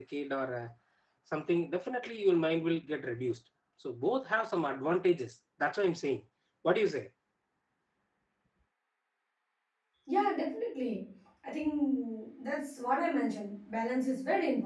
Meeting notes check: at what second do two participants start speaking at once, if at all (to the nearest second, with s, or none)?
none